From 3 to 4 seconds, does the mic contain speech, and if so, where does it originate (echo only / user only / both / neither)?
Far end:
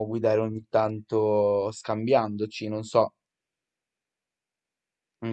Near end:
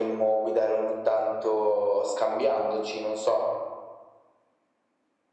echo only